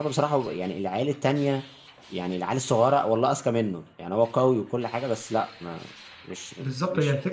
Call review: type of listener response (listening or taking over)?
taking over